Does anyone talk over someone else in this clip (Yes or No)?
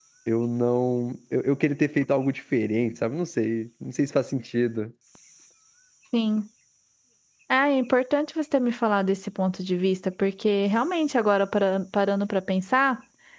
No